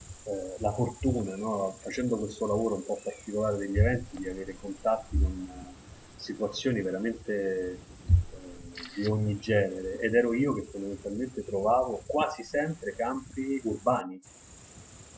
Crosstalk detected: No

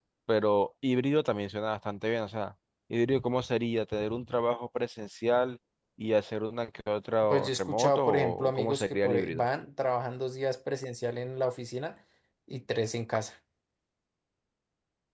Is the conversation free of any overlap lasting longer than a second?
No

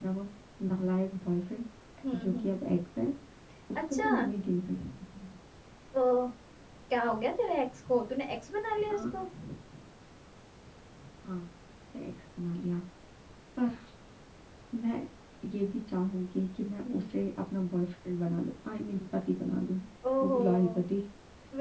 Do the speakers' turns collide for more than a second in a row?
No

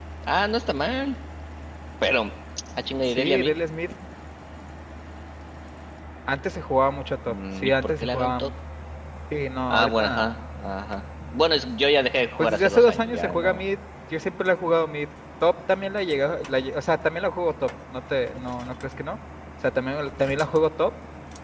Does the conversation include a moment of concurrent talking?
Yes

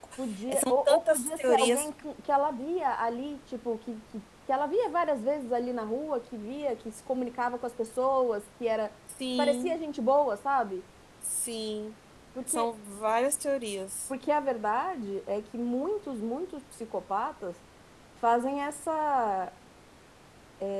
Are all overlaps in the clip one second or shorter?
No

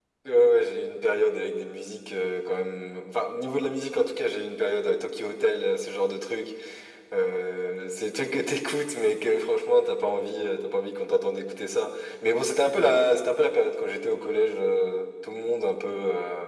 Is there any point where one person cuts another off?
No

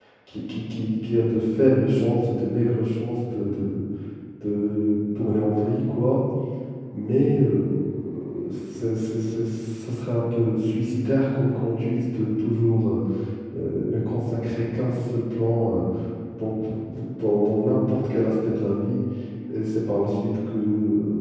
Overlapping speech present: No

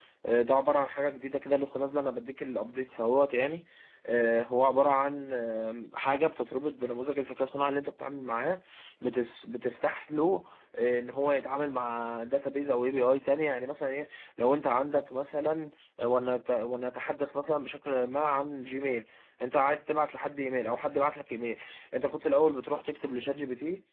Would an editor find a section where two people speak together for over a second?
No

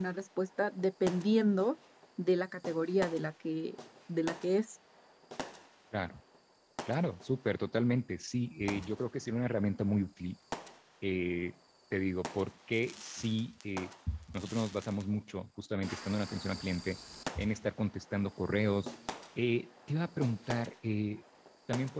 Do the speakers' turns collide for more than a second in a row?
No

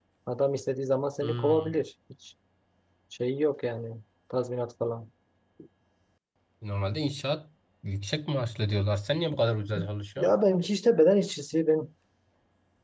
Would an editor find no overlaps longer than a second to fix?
Yes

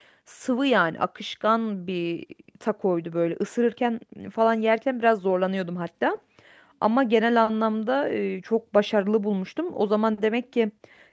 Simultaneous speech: No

